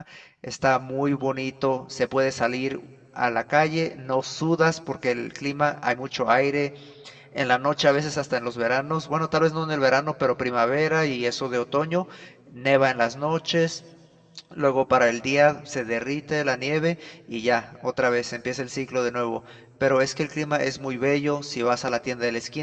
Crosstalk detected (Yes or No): No